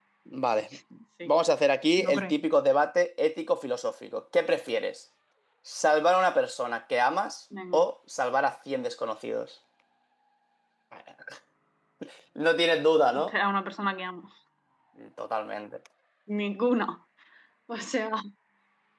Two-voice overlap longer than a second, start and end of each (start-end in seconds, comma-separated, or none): none